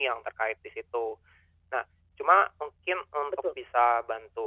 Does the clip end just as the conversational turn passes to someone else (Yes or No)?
No